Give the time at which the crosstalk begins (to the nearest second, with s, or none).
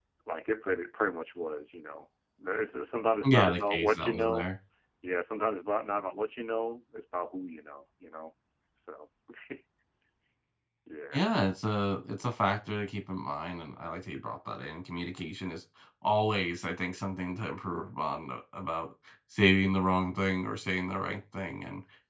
3 s